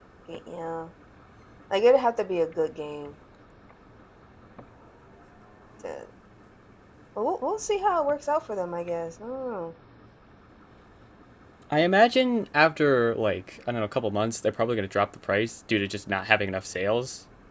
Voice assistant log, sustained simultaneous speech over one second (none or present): none